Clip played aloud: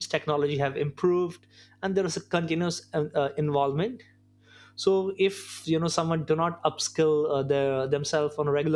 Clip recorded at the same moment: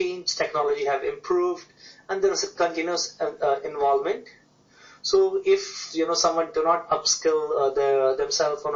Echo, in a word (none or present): present